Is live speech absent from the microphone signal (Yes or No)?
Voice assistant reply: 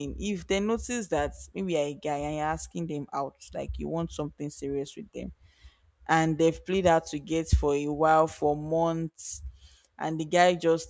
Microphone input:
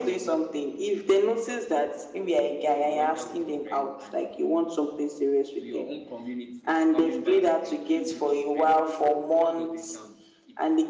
No